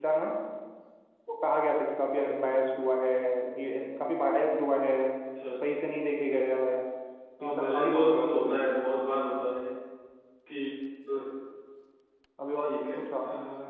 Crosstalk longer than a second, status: present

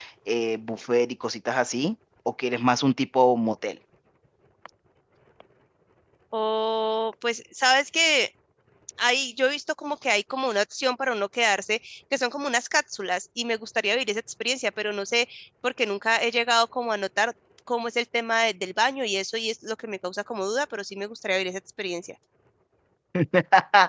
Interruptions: none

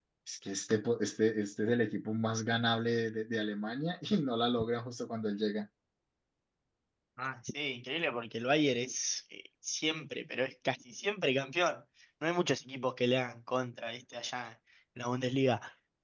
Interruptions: none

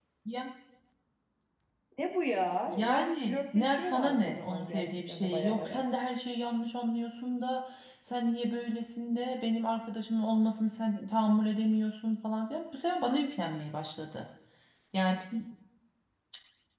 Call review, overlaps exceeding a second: present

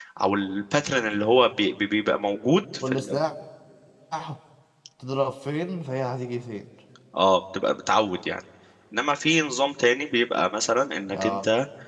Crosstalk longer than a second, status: none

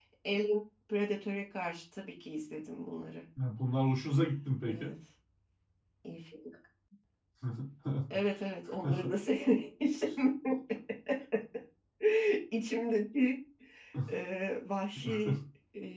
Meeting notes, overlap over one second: none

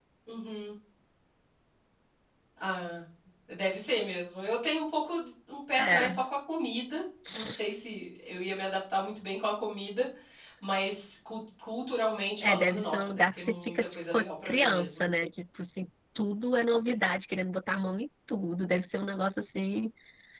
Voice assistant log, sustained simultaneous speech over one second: present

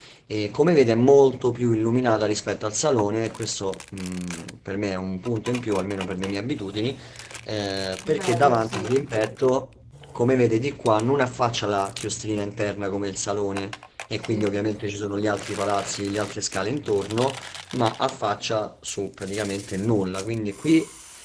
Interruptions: present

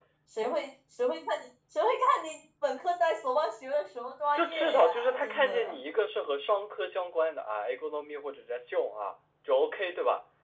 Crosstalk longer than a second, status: present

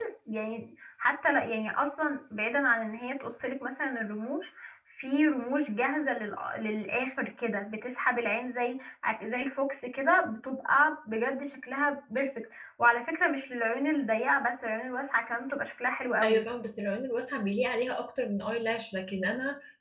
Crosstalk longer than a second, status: none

